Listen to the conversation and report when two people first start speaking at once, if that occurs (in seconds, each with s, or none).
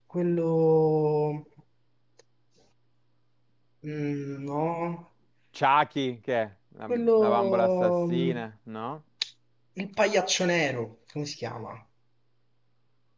6.9 s